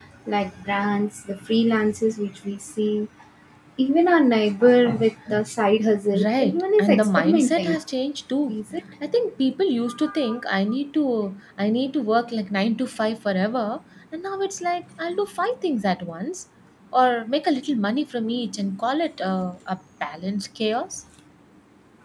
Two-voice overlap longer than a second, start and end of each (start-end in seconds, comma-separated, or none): 6.2-7.8